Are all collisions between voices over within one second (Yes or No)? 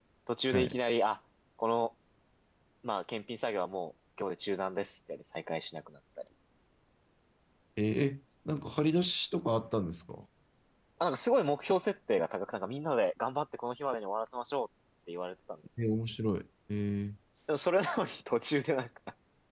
Yes